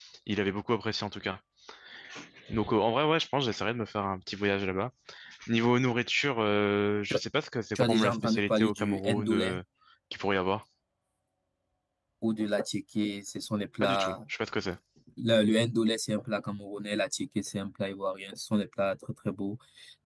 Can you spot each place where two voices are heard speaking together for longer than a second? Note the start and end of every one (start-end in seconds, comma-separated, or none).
7.8-9.6